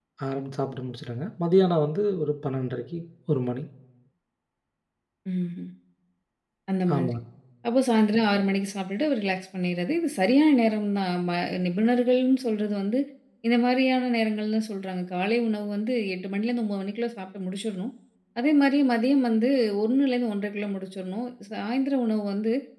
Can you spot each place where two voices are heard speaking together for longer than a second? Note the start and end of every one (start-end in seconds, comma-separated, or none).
none